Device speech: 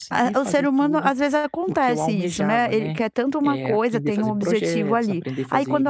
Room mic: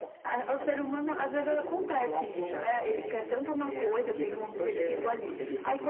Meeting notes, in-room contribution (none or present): present